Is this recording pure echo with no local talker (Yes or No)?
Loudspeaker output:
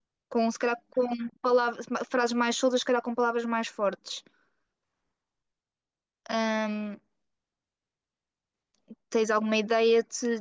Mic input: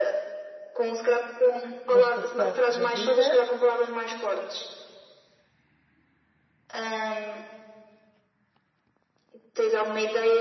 No